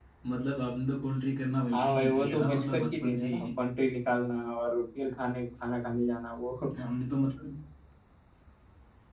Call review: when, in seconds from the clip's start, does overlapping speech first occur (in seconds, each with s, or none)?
1.7 s